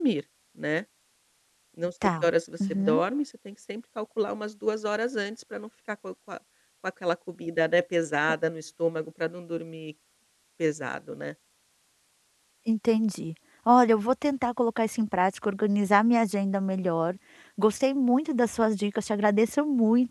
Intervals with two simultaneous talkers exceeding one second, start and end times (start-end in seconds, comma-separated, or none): none